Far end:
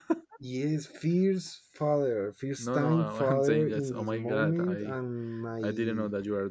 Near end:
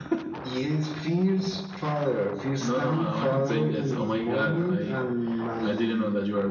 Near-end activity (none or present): none